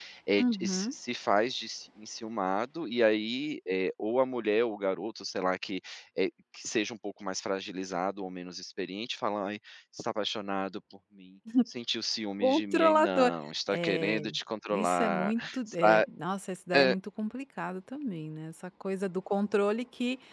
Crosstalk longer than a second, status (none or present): present